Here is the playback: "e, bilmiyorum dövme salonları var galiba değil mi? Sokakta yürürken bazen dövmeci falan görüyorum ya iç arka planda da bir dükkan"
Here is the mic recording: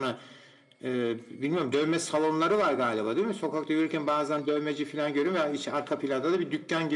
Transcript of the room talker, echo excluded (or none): none